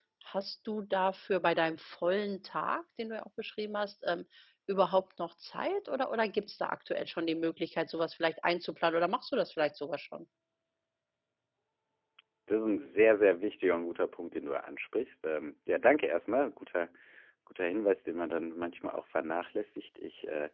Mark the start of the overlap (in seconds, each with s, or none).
none